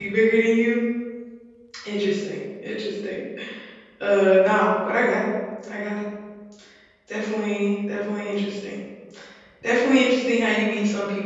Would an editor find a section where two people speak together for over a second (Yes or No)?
No